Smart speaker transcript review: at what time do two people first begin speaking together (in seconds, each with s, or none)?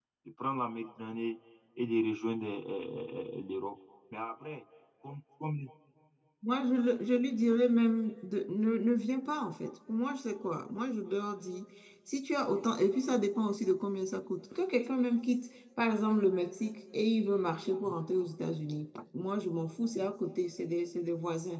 none